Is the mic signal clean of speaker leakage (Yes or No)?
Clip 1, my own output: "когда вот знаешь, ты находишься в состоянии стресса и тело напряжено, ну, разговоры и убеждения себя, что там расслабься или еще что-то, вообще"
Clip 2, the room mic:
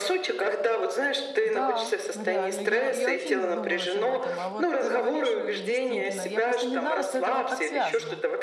No